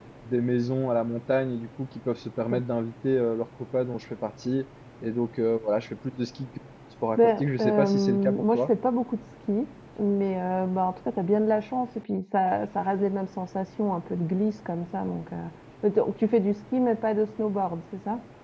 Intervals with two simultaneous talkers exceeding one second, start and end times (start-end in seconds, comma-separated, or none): 7.2-8.7